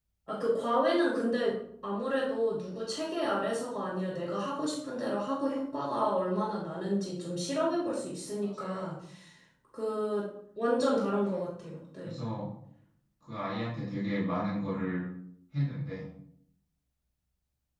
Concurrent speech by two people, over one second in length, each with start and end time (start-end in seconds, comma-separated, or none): none